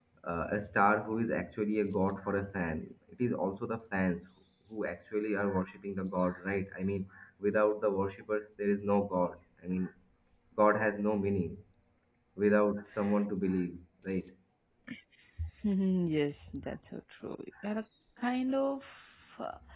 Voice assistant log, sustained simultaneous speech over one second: none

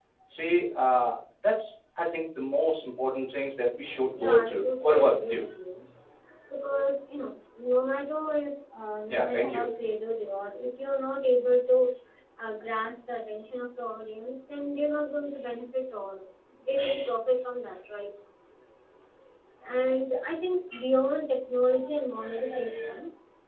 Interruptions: present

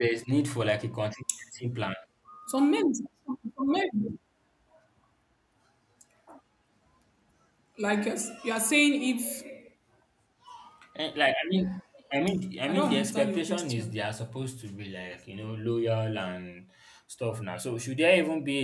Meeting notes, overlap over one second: present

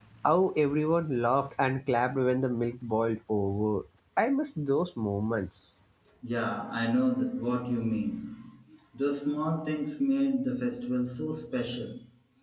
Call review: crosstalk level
none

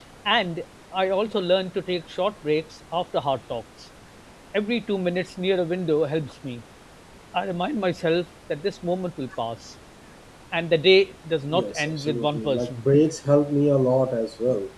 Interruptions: present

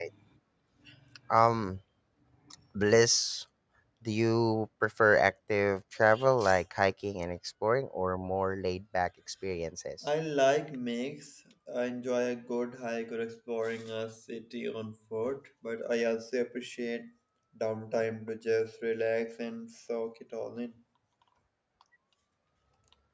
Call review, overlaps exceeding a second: none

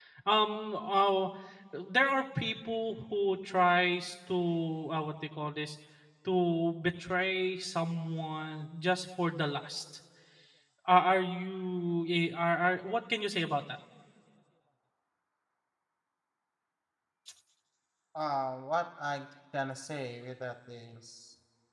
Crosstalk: none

